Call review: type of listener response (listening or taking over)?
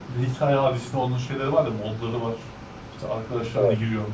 listening